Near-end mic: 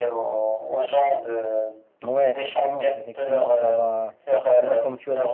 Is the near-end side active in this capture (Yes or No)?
Yes